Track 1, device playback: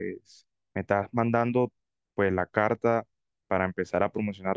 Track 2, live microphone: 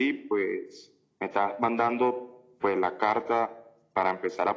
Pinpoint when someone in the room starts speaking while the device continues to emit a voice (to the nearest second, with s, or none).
none